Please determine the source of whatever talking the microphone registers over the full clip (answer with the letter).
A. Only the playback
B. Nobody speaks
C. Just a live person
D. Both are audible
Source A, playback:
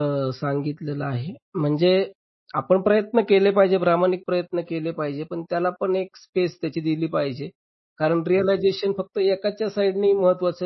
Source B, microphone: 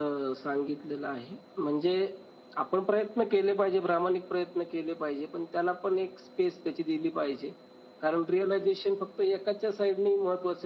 A